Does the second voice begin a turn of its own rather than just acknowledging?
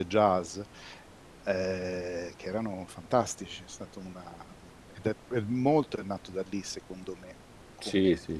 Yes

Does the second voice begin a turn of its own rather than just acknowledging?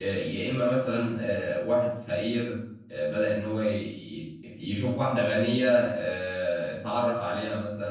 No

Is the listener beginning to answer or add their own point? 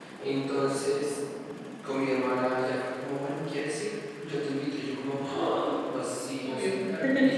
No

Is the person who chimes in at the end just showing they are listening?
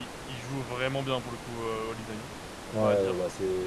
No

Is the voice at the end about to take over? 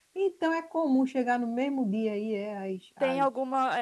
Yes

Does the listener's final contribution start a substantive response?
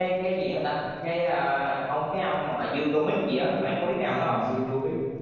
Yes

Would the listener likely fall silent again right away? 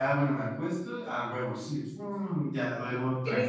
No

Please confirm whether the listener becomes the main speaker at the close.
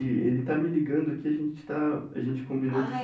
No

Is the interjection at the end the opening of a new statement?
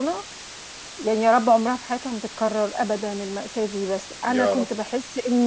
No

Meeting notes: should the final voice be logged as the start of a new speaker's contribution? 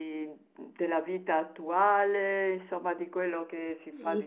Yes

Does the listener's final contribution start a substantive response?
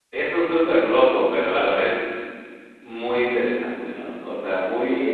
Yes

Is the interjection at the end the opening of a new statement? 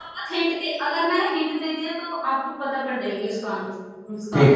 Yes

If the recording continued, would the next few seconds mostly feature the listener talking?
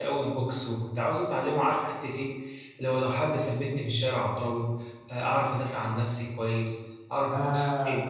No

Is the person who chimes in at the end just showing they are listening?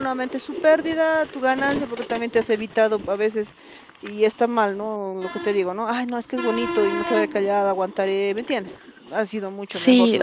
No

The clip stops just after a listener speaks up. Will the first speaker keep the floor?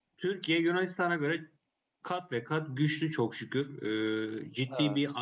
Yes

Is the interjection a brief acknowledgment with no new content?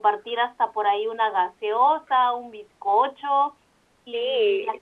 Yes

